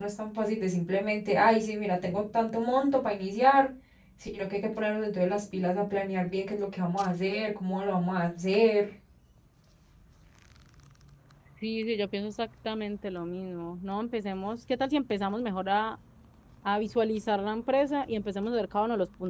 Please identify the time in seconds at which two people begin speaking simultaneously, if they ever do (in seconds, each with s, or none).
none